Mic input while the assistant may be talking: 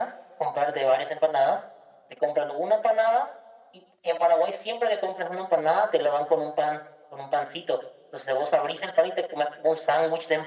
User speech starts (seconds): none

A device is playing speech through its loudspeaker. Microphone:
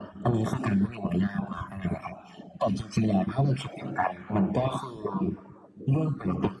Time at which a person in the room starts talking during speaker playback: none

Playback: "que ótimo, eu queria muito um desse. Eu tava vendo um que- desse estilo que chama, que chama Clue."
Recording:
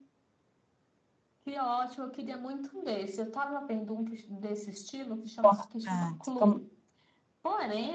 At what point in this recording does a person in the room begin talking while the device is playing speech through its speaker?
5.2 s

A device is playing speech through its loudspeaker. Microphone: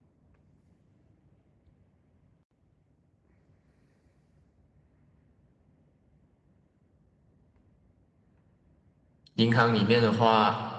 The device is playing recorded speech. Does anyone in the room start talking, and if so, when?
9.4 s

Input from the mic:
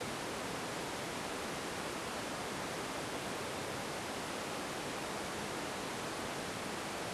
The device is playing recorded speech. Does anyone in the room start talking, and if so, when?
none

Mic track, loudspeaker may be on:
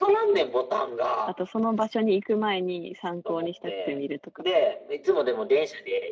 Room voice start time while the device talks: 1.2 s

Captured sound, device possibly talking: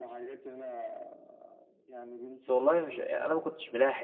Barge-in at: 2.4 s

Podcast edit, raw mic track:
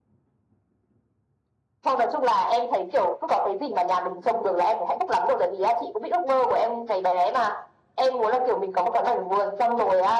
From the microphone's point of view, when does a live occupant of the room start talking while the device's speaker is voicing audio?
none

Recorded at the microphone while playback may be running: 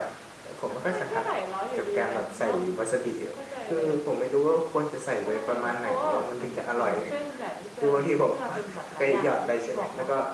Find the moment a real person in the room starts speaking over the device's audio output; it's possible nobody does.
none

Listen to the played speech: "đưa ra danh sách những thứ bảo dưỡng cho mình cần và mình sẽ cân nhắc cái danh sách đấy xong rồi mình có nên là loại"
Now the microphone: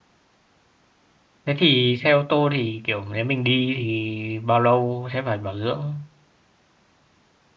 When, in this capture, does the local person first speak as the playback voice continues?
1.4 s

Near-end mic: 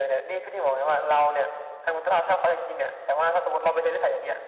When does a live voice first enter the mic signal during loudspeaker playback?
none

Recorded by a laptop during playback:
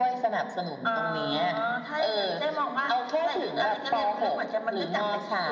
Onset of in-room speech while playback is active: none

